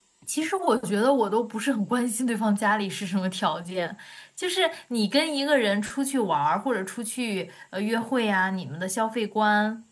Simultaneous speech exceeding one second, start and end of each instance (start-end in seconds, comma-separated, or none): none